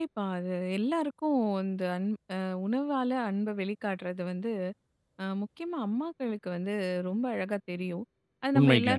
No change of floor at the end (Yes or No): Yes